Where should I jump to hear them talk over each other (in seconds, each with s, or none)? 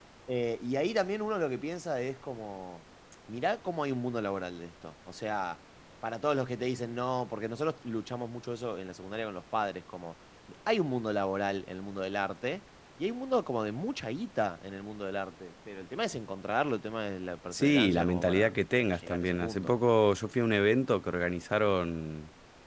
17.5 s